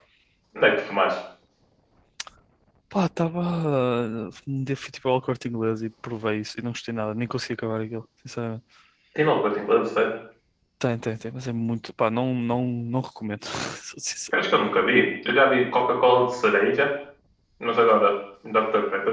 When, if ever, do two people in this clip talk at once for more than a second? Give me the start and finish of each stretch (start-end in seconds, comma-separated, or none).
none